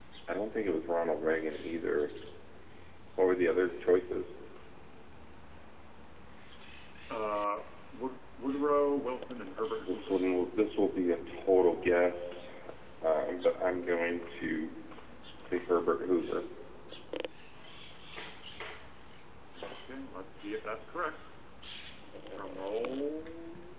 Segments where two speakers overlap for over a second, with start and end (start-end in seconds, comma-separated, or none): none